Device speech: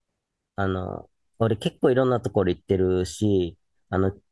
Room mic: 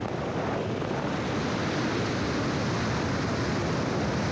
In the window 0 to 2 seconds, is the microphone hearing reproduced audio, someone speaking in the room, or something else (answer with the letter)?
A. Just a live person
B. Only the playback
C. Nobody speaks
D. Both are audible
C